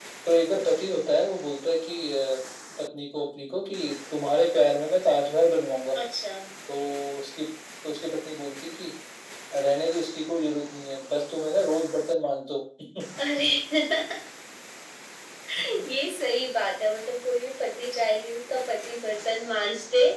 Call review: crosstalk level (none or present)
none